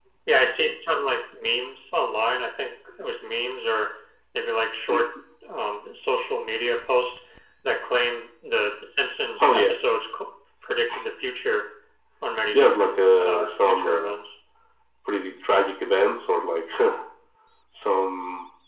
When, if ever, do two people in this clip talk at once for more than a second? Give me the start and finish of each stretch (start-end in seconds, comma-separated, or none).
12.5-14.1